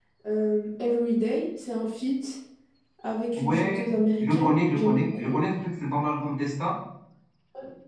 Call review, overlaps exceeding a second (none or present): present